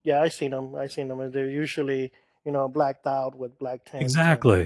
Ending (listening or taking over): taking over